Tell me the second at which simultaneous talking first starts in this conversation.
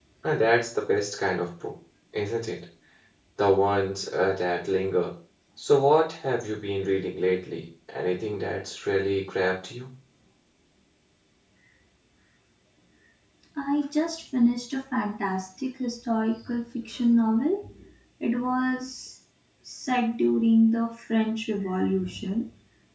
none

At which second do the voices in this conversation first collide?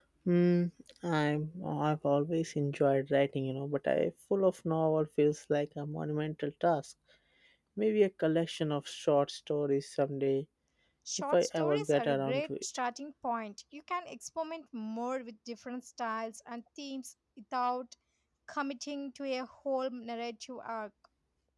11.3 s

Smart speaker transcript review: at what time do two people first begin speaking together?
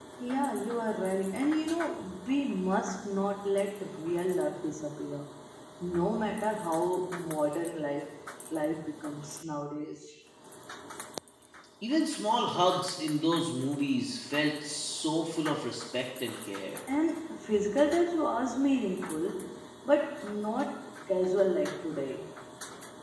none

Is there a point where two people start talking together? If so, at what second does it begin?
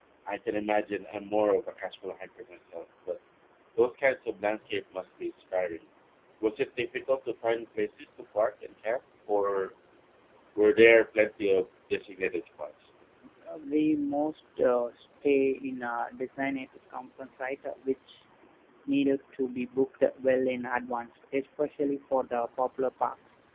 none

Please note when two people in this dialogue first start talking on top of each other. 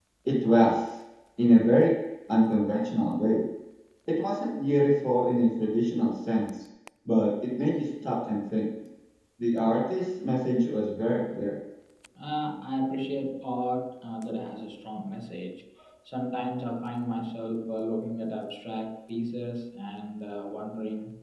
none

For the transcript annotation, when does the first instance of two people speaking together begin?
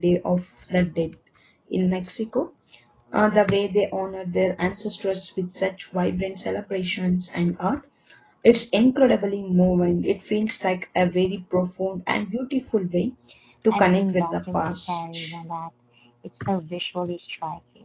13.7 s

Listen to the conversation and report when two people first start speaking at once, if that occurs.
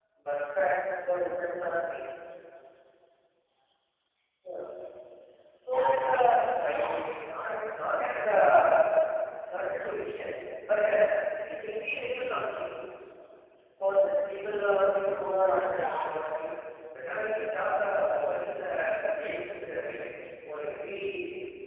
5.7 s

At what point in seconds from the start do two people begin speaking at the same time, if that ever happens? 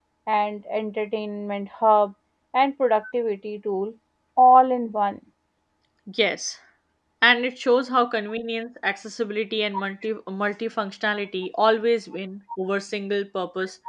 none

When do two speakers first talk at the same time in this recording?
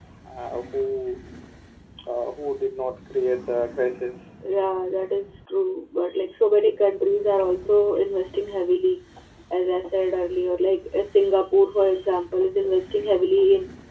none

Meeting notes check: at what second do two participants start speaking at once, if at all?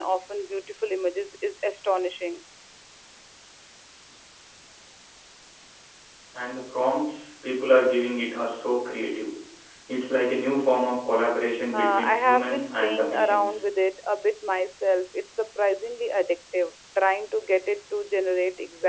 11.7 s

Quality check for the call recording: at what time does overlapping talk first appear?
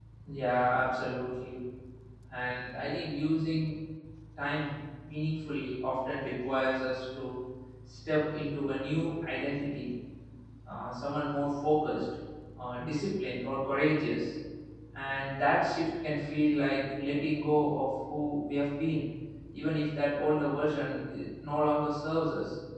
none

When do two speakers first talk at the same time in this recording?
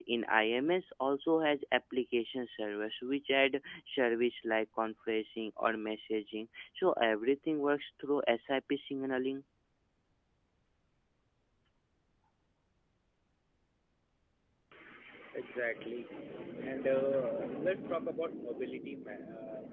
none

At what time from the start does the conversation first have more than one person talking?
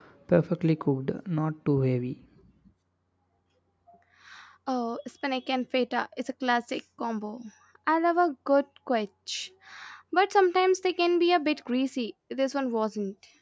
none

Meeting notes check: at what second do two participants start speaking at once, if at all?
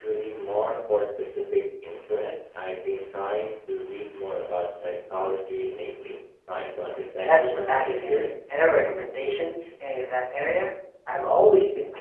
7.3 s

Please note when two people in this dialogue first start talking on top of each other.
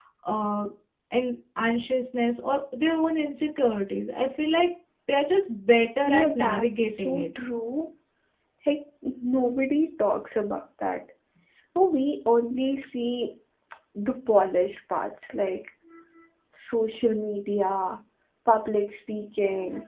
6.0 s

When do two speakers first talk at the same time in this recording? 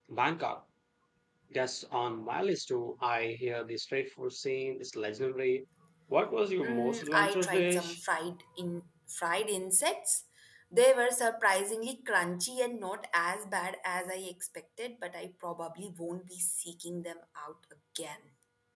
6.6 s

